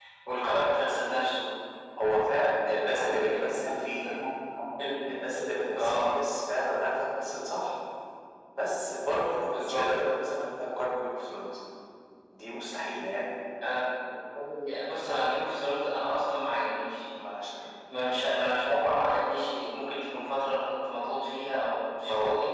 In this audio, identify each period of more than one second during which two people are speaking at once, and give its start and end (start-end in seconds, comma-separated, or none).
2.9-4.1